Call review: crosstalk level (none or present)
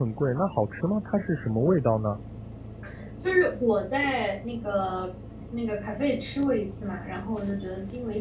none